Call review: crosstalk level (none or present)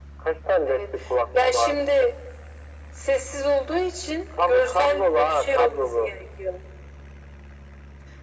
present